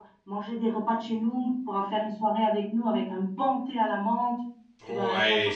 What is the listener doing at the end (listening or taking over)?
taking over